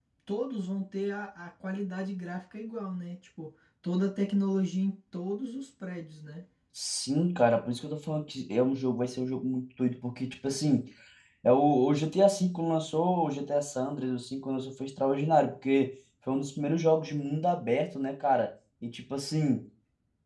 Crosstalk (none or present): none